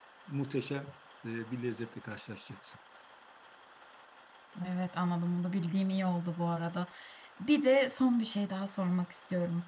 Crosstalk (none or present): none